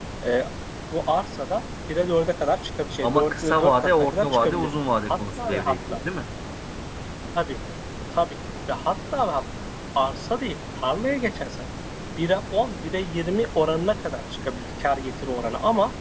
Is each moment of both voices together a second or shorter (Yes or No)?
No